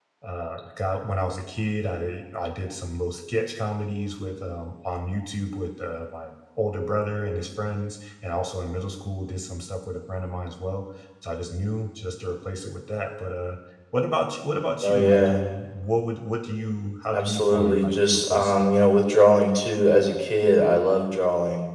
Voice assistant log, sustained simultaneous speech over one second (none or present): present